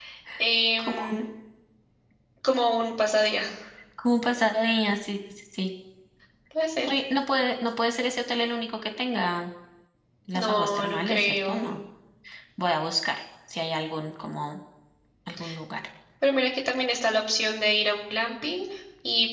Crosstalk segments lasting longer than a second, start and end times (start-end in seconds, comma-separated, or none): 10.3-11.8